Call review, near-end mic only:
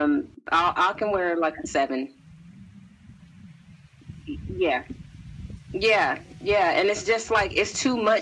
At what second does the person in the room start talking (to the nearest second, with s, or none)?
none